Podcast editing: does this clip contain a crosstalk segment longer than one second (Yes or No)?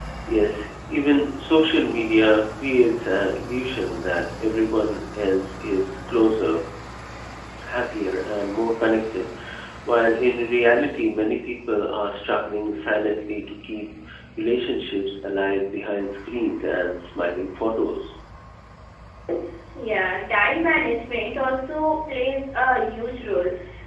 No